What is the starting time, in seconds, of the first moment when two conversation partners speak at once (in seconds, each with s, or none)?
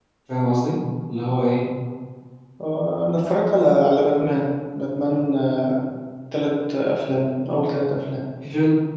none